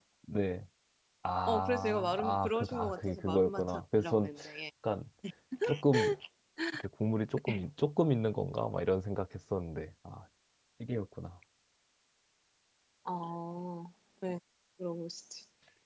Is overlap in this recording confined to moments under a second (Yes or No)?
No